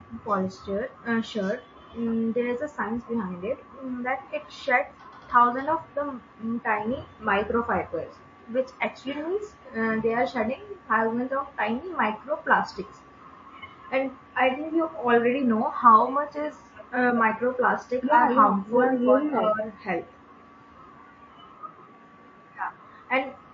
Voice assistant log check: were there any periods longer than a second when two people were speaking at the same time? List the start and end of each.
18.0-19.5

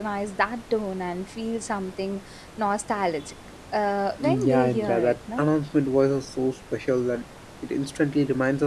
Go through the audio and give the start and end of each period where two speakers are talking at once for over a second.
4.2-5.5

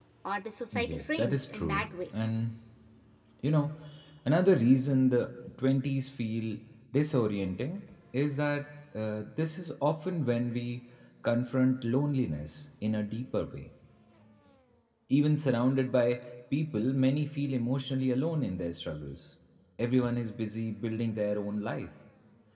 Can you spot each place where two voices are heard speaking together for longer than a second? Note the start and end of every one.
0.7-2.1

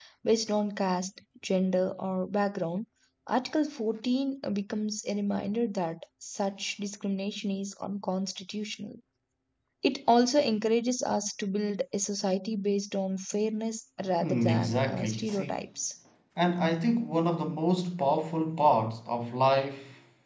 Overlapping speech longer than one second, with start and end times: 14.2-15.6

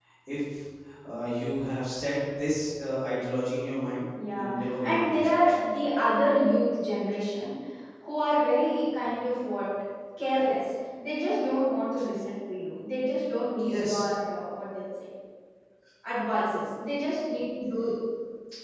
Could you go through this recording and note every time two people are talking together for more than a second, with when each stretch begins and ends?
4.4-5.6

